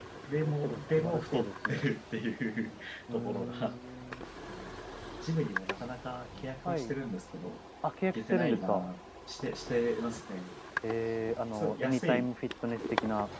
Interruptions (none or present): present